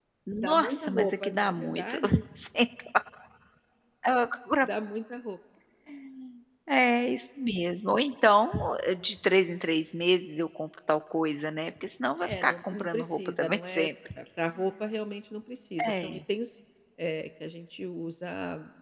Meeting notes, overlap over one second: present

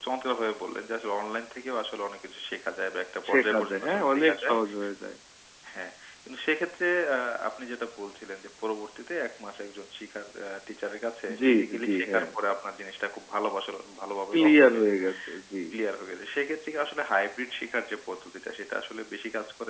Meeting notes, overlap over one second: present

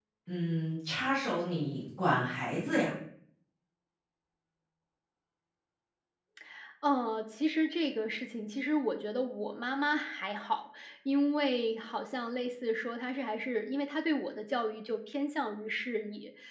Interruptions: none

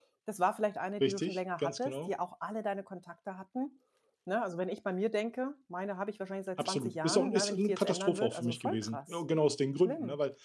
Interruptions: present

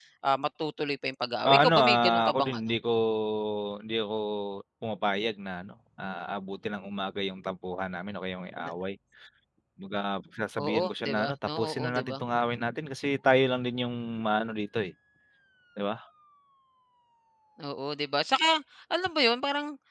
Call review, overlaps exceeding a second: present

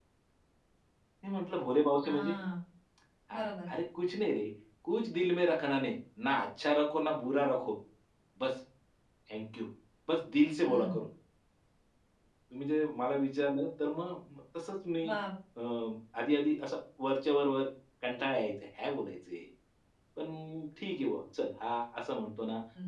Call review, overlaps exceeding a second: none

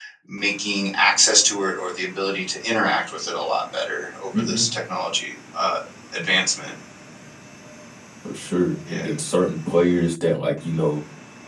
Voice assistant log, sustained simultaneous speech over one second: none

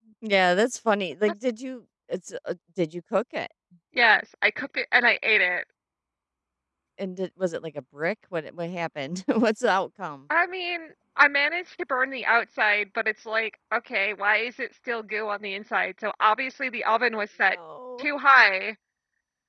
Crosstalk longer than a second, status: none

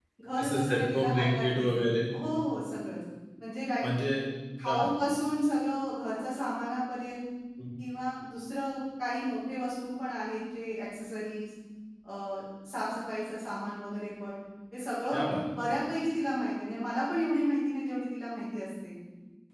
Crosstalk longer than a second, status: present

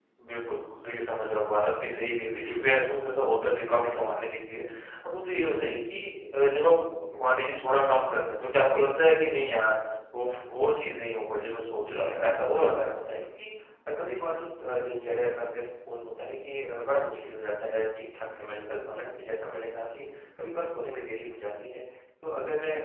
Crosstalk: present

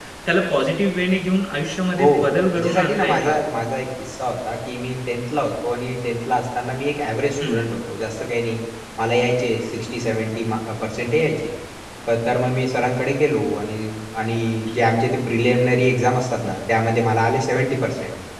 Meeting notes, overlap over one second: present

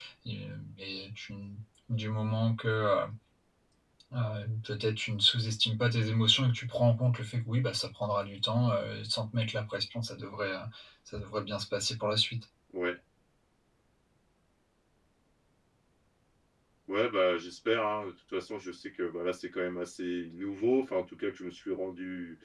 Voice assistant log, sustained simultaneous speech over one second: none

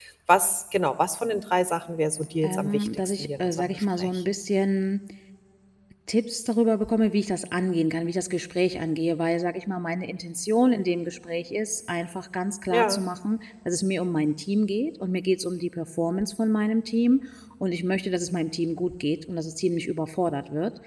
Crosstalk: present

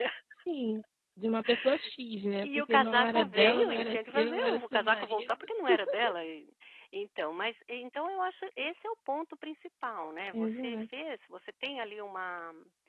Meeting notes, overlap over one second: present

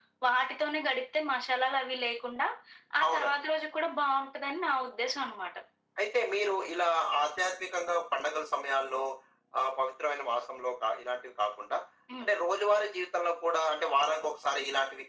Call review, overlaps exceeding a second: none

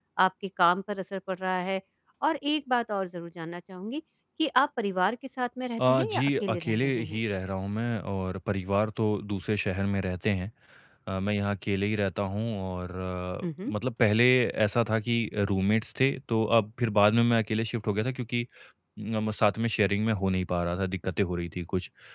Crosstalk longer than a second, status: present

